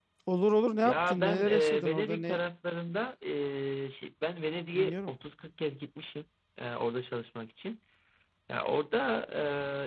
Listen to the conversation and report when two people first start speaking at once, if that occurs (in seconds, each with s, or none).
0.8 s